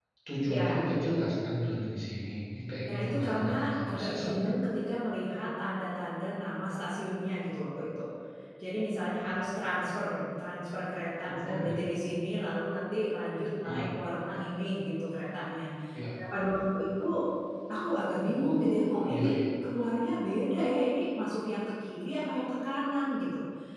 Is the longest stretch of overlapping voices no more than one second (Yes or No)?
No